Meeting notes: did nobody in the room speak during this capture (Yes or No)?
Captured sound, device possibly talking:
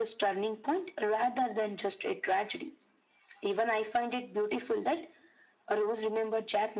Yes